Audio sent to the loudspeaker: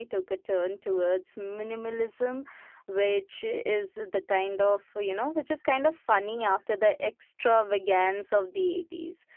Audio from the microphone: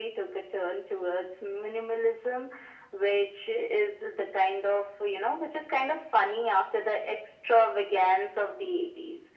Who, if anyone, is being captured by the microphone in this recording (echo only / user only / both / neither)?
echo only